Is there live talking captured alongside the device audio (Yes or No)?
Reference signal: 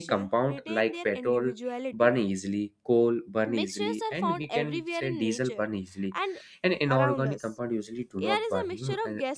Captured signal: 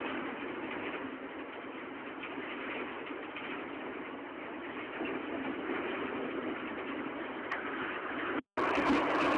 No